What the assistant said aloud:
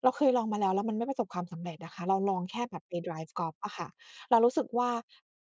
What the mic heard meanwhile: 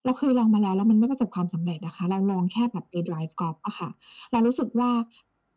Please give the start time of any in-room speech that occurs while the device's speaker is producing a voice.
none

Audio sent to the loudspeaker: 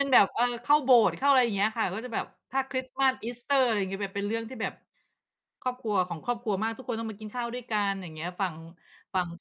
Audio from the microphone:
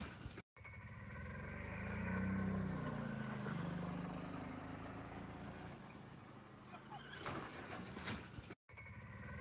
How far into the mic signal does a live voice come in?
none

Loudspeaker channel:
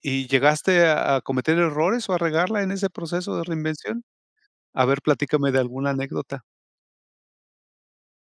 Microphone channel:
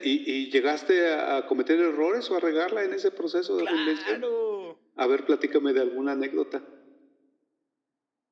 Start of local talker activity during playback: 4 s

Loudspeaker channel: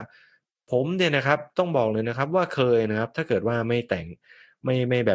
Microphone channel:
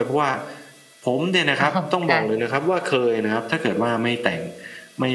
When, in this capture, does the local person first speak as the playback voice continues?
2 s

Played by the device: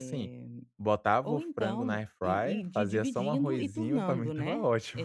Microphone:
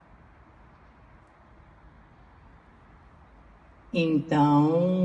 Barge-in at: 4 s

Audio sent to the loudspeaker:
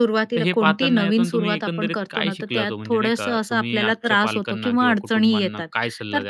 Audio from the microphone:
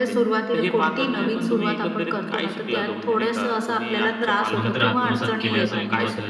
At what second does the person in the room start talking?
5 s

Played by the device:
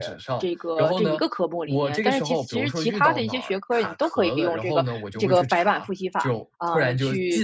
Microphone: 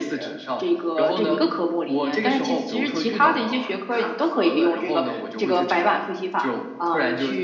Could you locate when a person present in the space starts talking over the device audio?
none

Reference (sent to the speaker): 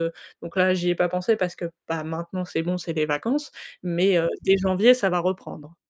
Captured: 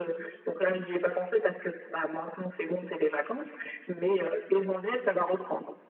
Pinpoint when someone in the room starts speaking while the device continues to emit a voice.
none

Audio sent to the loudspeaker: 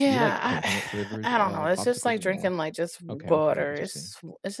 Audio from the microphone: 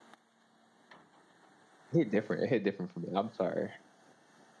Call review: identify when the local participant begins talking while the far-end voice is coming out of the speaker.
2 s

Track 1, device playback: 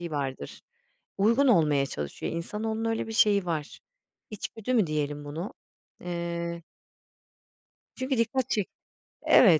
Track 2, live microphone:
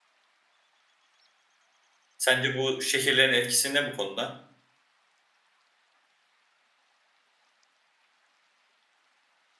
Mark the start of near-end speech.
2 s

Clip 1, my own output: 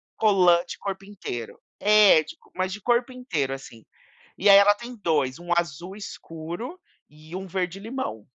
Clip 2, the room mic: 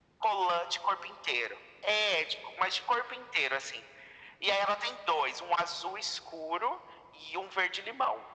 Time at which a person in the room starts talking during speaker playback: none

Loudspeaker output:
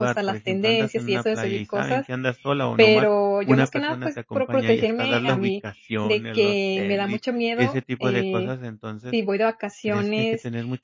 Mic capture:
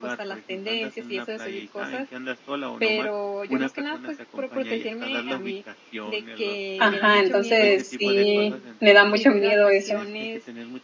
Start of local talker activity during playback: 7 s

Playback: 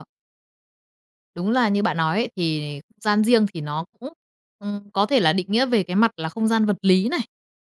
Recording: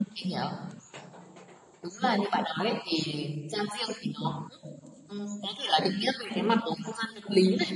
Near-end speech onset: none

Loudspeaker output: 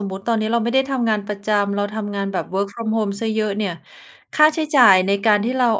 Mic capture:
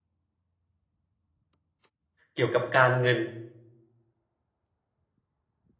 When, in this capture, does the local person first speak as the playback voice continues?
2 s

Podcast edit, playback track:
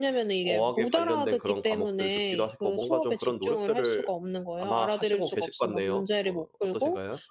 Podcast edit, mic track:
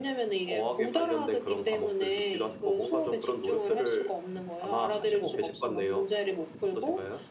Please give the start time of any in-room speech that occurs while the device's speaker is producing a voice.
none

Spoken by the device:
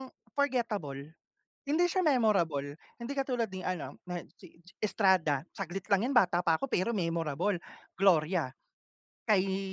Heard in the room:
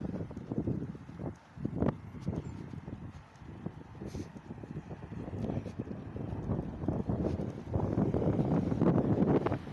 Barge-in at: none

